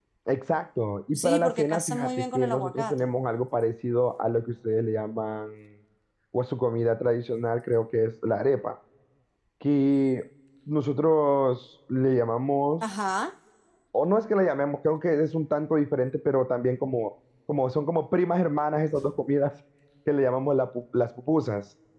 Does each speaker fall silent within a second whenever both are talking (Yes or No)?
No